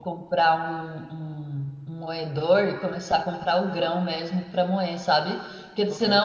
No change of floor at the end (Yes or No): Yes